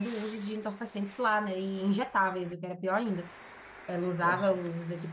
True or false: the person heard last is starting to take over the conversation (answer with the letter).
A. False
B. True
A